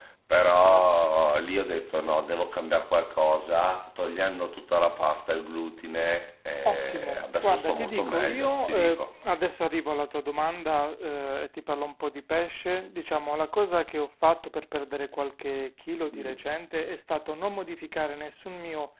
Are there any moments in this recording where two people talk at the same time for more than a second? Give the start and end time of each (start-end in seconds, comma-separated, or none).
6.7-9.0